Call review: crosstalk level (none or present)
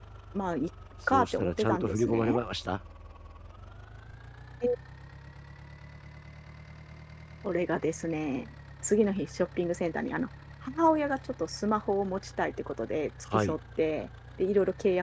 present